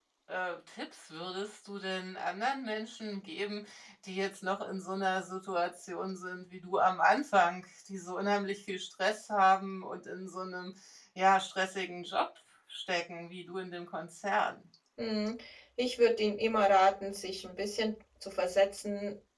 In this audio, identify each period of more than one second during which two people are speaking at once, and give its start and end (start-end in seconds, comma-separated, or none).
none